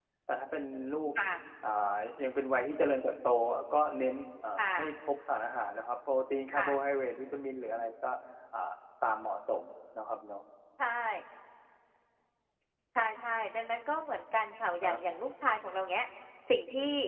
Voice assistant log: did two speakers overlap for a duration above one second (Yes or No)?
No